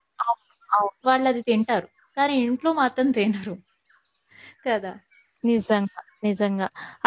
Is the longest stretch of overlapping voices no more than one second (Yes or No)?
Yes